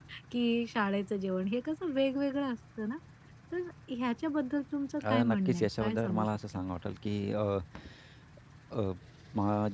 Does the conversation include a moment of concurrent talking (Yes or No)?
Yes